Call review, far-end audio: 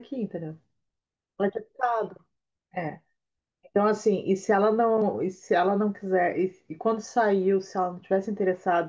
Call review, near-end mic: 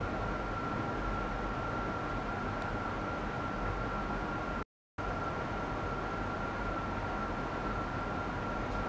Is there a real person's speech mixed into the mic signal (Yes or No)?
No